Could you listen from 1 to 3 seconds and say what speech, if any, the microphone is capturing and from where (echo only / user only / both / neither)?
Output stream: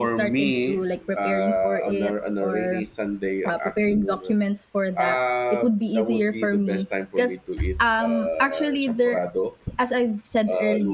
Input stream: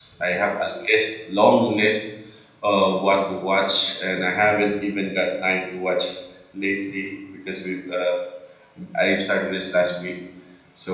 user only